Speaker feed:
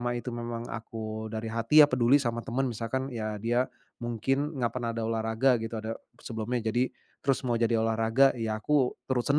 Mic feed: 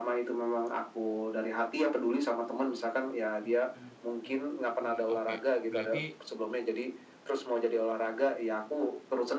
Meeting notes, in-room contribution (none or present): present